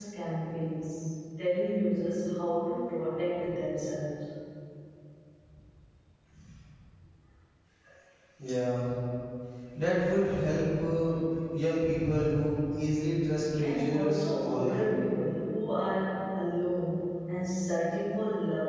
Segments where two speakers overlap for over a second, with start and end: 13.6-15.0

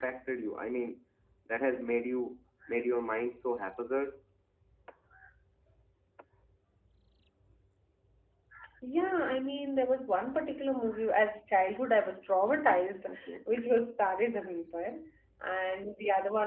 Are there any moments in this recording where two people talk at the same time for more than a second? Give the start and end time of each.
none

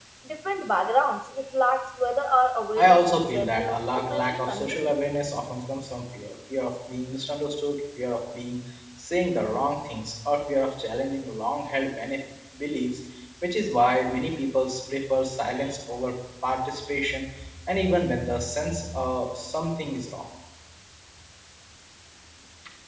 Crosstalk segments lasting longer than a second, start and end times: 2.8-5.0

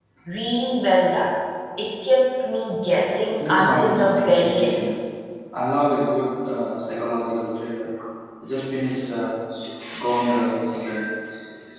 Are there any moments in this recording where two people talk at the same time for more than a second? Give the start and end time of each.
3.4-4.9

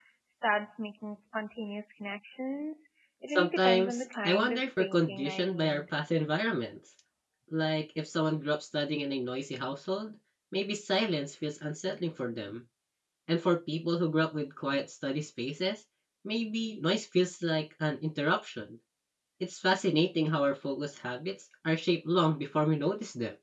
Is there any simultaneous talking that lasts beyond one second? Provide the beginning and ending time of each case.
3.3-5.8

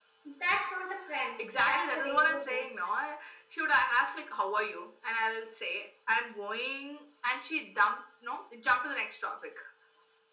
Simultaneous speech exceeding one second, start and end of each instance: 1.4-2.7

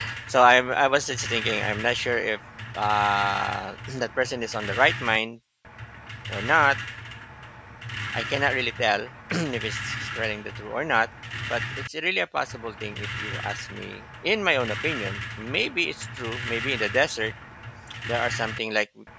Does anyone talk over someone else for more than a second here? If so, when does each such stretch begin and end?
none

